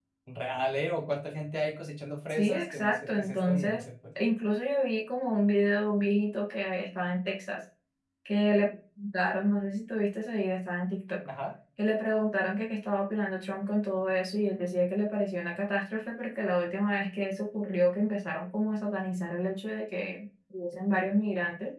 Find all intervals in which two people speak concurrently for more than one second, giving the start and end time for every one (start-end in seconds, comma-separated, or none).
2.3-3.8